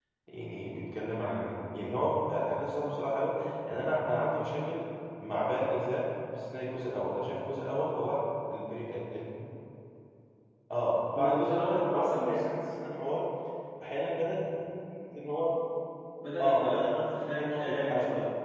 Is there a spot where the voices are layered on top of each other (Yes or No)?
Yes